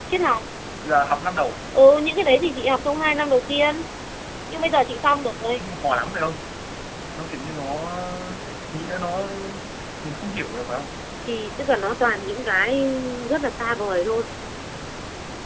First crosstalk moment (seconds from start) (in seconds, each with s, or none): none